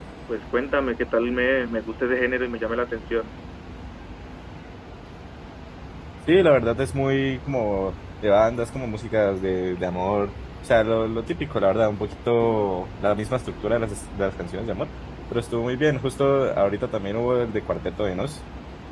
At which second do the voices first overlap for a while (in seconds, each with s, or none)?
none